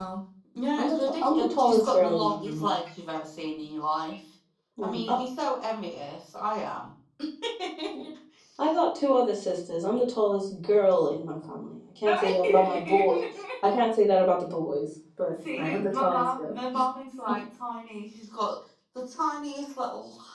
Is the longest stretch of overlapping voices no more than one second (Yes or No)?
No